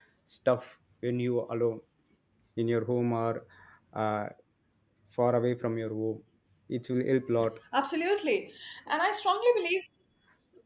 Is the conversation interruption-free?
Yes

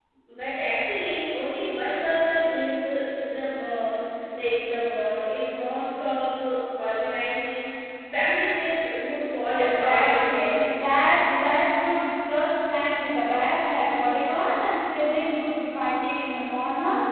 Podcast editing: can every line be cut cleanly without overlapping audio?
No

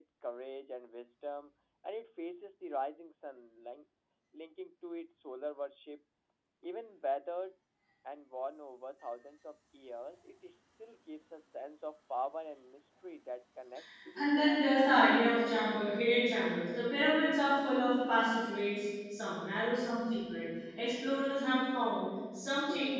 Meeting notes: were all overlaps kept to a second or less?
No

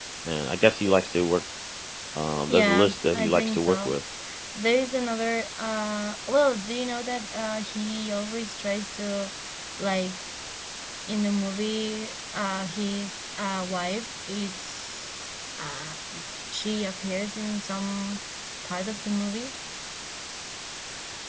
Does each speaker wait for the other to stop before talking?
No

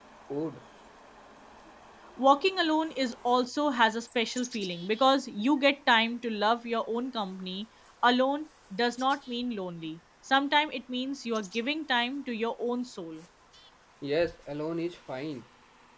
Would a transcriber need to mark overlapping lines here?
No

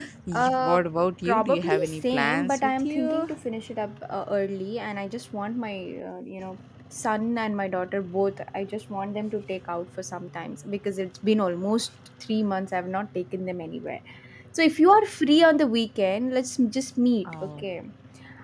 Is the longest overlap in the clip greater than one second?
Yes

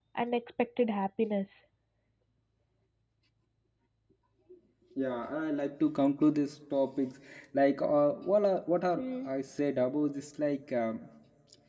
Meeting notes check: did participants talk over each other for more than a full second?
No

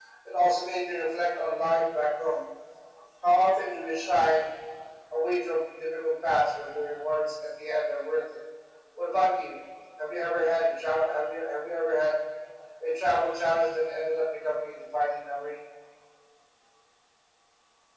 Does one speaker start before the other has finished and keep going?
No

